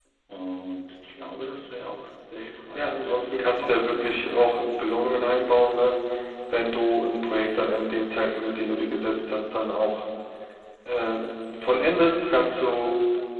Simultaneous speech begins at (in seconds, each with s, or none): 2.7 s